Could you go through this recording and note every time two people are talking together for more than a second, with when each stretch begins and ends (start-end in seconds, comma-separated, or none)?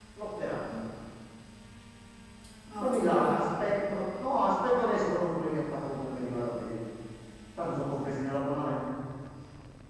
2.8-4.4